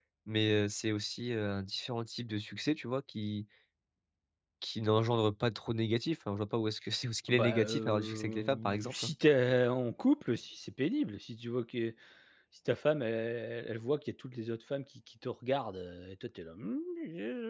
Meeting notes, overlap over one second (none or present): present